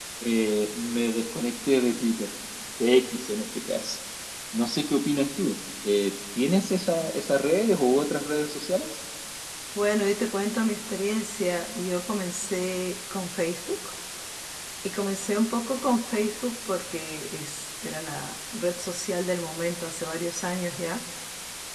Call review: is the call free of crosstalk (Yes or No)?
Yes